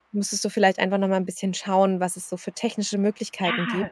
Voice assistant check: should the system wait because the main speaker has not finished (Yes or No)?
No